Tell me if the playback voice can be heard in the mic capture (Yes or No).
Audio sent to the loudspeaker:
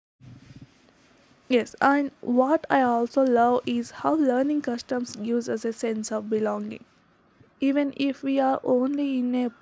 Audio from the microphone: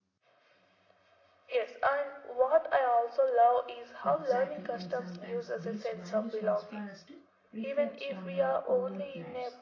Yes